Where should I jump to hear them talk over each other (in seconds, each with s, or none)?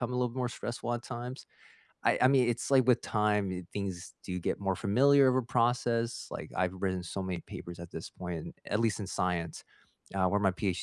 none